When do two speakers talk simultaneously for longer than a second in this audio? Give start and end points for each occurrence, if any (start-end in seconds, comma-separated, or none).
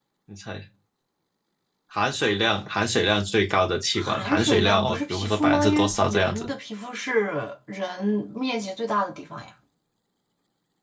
4.0-6.5